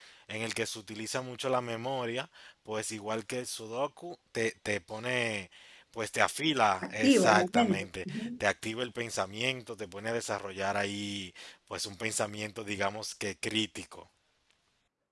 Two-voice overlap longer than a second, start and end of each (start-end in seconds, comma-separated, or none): 6.8-8.3